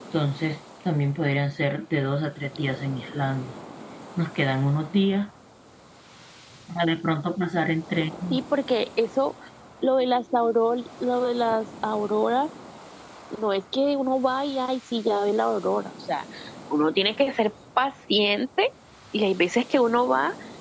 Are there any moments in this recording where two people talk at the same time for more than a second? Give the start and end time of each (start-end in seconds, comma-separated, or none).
none